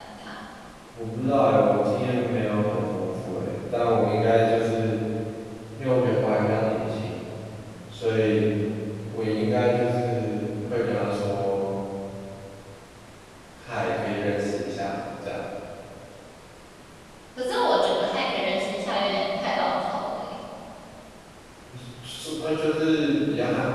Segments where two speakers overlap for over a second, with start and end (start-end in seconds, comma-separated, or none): none